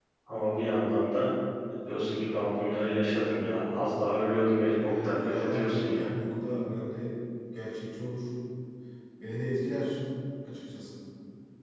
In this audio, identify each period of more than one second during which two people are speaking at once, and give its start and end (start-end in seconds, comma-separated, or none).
4.8-6.1